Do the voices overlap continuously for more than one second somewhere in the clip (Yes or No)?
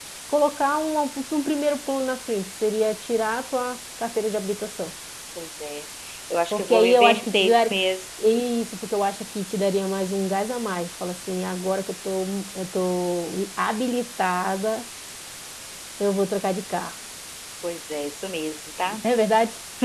Yes